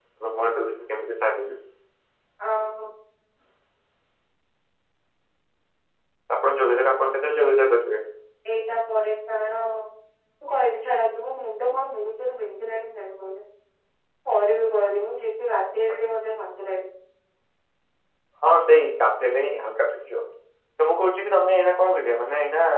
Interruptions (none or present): none